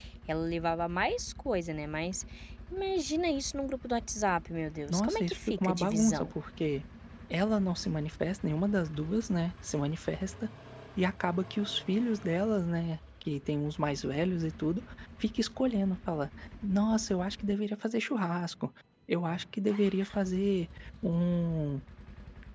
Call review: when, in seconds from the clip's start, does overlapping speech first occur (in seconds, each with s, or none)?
4.9 s